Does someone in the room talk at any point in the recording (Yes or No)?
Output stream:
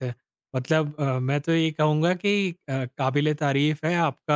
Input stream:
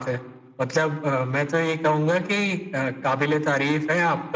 No